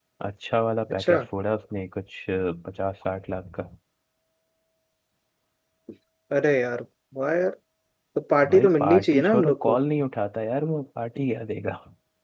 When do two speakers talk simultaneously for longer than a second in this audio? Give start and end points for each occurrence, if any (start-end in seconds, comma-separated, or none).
8.5-9.8